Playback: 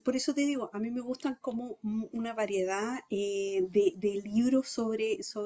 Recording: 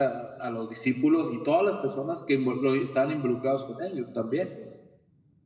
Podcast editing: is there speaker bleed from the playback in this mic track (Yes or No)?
No